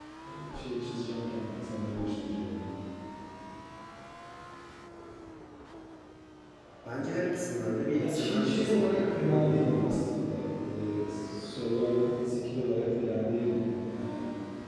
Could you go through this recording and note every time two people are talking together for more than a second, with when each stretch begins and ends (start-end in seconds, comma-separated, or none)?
8.0-10.0